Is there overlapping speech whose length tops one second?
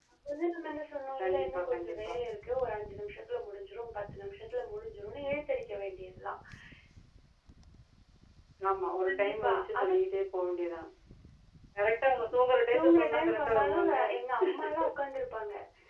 Yes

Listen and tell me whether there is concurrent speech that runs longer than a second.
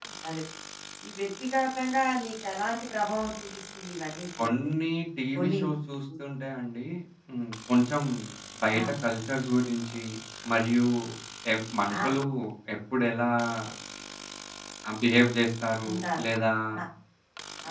No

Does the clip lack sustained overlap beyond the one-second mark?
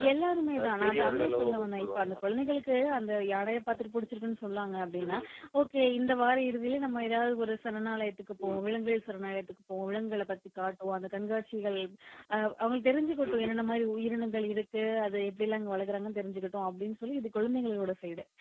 No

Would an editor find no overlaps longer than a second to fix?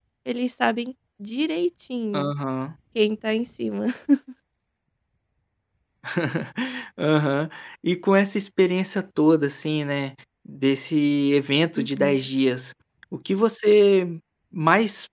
Yes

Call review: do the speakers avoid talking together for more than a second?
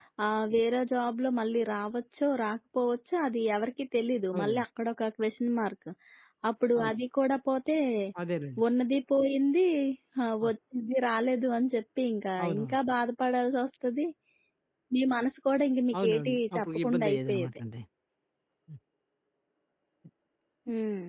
No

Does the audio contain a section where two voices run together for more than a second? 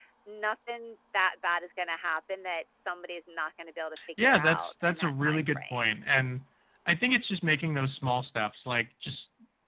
Yes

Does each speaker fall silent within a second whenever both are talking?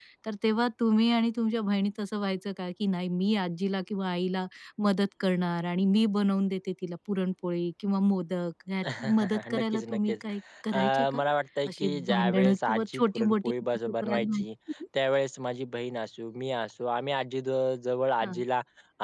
No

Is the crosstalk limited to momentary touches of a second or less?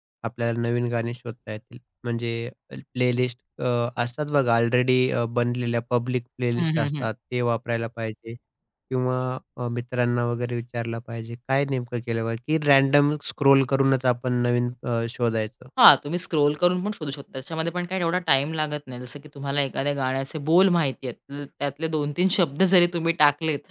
Yes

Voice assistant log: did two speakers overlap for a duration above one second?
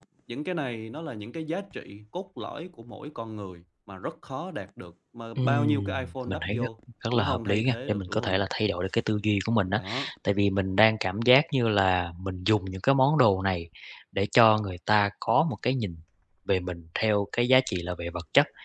Yes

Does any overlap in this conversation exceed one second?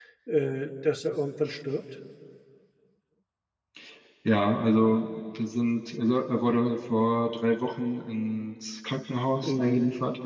No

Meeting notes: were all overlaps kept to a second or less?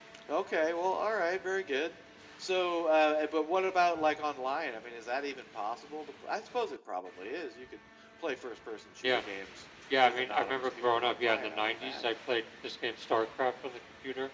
No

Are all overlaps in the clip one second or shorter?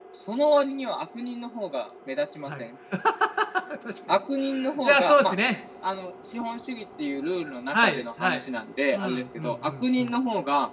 No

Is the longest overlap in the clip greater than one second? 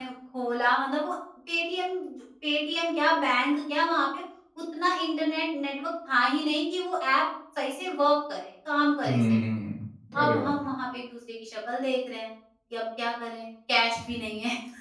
No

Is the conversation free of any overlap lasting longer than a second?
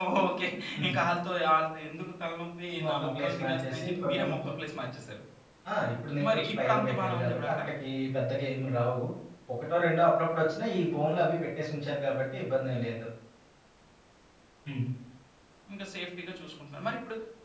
No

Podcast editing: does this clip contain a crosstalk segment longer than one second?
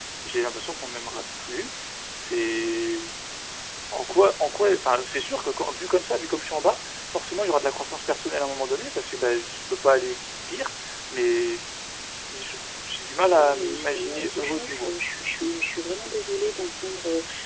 Yes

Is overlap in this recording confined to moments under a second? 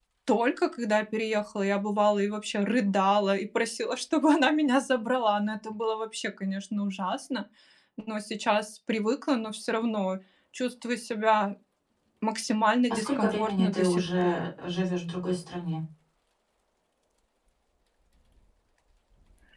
No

